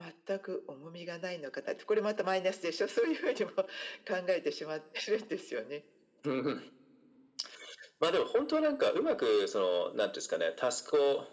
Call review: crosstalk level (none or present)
none